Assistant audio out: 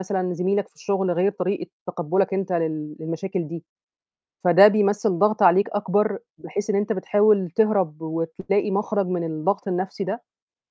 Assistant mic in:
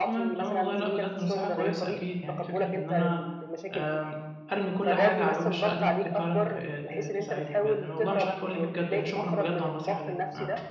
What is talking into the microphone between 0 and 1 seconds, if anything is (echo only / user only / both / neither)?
both